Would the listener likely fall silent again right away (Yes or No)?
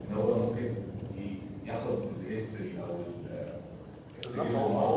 No